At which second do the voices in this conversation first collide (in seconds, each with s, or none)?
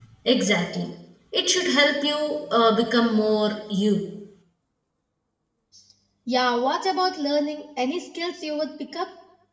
none